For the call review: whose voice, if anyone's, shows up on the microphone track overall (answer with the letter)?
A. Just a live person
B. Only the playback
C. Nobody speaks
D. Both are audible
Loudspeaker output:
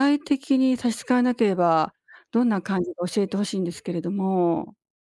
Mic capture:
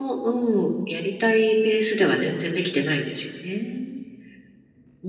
A